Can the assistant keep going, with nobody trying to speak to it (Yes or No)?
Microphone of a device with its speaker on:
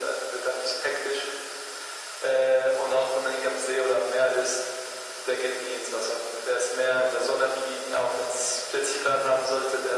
Yes